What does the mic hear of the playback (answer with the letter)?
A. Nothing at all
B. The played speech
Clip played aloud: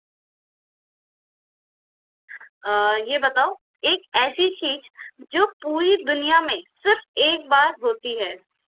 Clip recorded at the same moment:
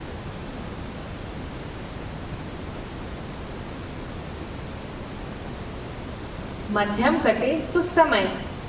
A